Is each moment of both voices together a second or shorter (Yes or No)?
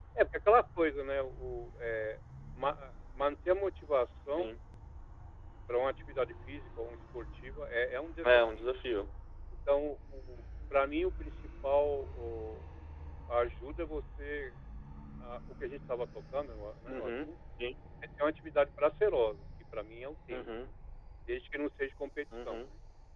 Yes